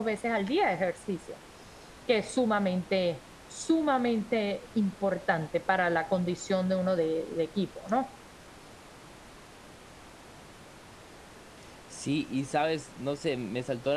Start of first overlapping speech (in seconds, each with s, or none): none